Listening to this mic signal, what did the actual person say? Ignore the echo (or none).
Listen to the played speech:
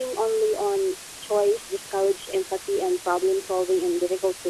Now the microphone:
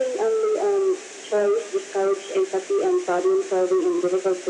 none